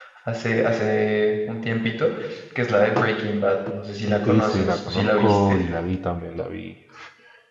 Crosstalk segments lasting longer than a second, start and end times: 4.2-5.6

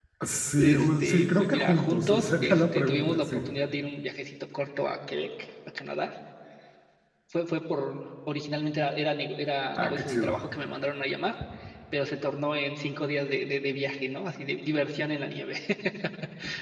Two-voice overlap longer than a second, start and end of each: 0.6-3.4

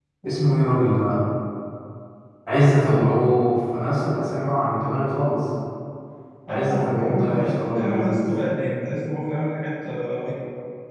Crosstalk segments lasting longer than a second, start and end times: 6.5-8.2

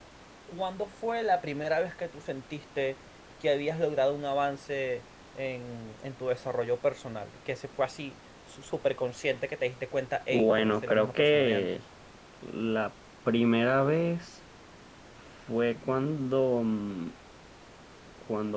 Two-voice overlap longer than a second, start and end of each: 10.3-11.7

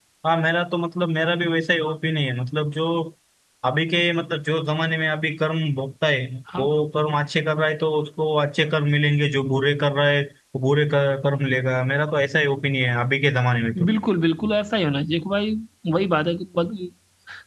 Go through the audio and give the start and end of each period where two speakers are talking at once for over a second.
none

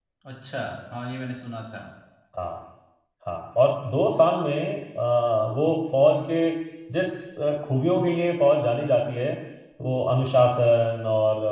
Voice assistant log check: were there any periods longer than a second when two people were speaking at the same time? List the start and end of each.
none

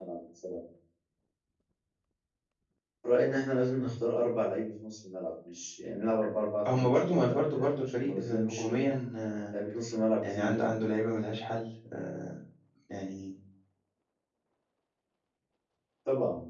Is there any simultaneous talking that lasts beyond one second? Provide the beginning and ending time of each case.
6.7-8.7

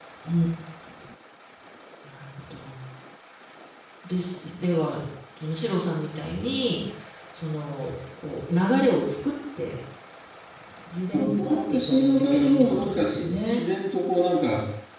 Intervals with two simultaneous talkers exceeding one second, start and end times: 11.1-13.7

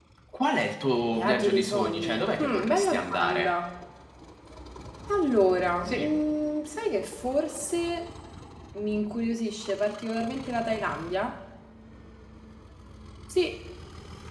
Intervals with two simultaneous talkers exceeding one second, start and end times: 1.0-3.5

